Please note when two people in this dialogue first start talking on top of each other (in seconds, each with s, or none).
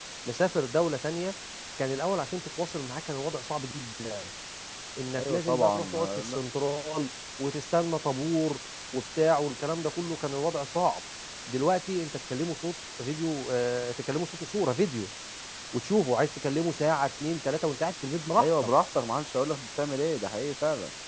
5.2 s